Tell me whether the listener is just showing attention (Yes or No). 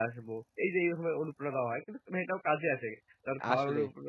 Yes